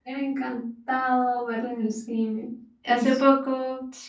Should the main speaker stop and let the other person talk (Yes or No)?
Yes